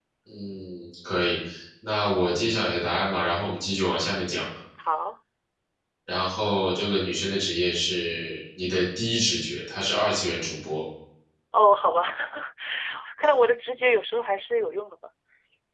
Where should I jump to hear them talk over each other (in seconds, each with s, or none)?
none